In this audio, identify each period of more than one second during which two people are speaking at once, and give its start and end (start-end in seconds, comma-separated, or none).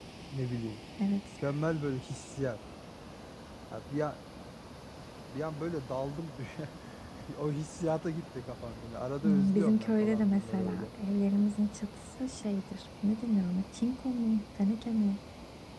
9.2-10.9